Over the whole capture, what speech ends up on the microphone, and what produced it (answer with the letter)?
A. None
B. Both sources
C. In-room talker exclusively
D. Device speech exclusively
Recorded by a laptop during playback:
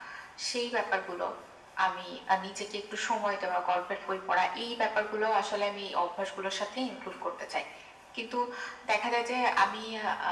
D